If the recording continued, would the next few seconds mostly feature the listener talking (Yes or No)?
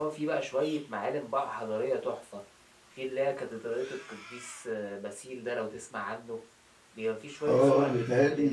Yes